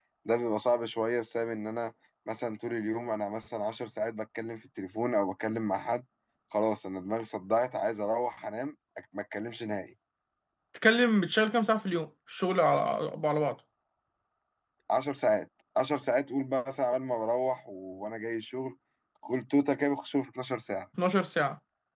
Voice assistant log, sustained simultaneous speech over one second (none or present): none